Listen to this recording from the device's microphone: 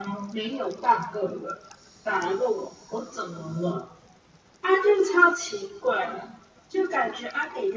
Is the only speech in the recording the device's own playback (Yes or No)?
Yes